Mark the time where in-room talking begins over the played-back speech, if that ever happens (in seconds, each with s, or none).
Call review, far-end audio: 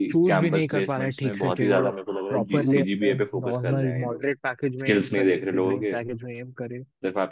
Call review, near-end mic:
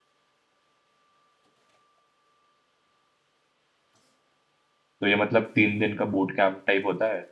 5.0 s